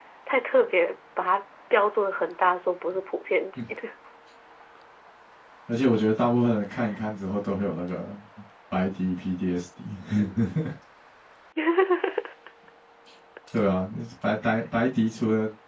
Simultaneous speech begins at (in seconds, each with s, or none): none